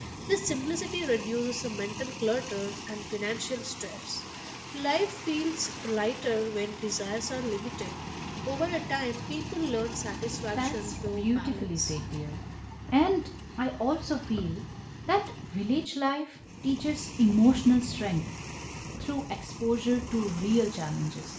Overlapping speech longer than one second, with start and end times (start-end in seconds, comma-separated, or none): 10.6-12.0